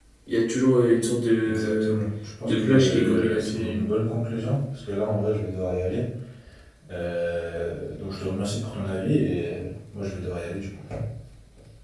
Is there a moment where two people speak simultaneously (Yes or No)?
Yes